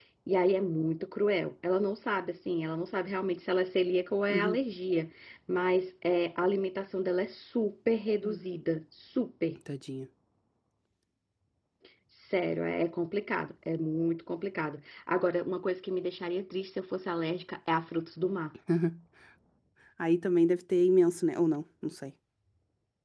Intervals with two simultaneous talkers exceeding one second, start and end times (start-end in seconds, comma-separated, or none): none